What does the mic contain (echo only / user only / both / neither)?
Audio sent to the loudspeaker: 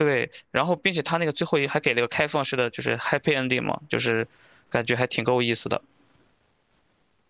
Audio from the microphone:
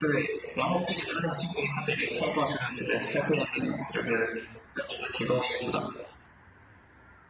echo only